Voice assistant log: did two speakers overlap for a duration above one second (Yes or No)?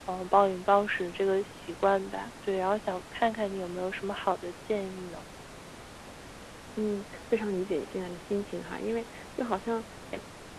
No